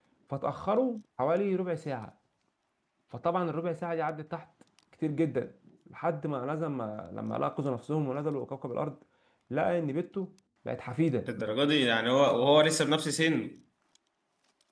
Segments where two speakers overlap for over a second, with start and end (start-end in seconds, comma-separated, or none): none